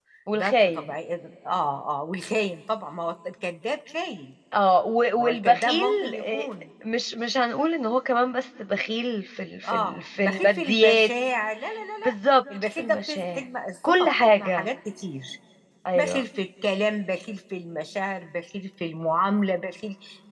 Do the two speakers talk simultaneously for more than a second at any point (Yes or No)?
Yes